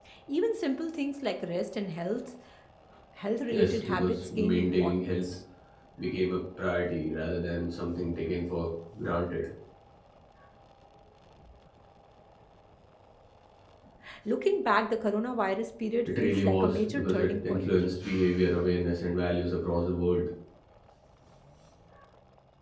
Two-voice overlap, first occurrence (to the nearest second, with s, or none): 4 s